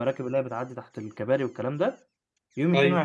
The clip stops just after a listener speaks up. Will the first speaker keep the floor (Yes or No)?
Yes